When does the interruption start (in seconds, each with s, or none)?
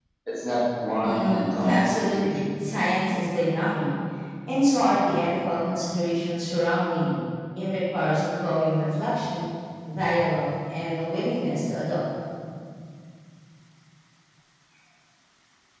1.0 s